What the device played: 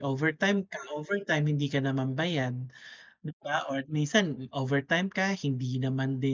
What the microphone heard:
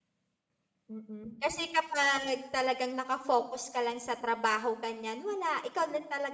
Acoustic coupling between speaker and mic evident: No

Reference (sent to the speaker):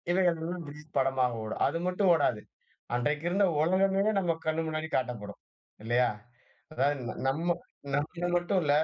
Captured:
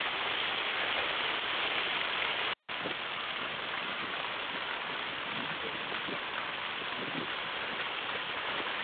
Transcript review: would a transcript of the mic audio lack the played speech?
Yes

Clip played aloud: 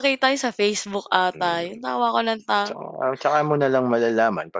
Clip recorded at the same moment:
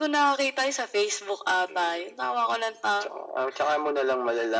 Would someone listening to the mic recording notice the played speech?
Yes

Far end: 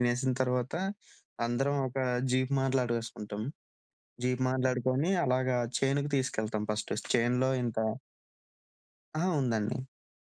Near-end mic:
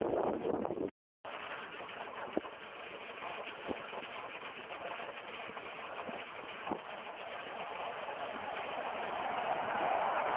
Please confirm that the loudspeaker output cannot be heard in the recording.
Yes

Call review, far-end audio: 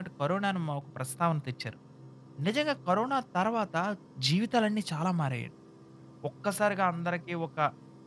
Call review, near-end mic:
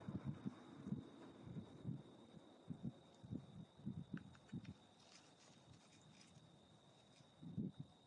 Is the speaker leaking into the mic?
No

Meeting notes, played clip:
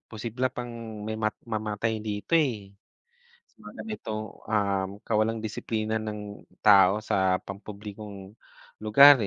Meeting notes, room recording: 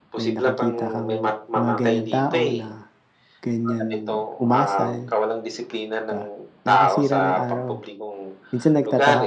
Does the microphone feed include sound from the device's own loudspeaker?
Yes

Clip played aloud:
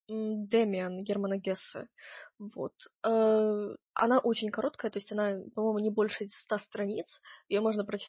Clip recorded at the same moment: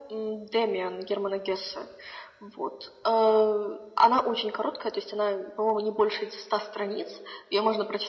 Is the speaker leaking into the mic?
Yes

